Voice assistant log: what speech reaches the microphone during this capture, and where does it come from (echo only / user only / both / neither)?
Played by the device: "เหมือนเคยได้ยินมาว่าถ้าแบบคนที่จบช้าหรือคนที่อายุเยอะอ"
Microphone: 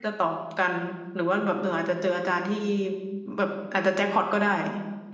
user only